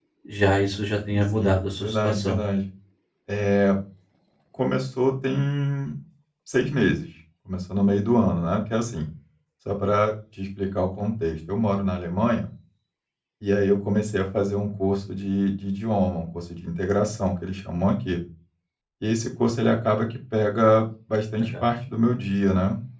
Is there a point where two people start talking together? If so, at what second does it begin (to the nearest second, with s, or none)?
1 s